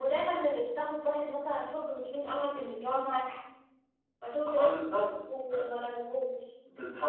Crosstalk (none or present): present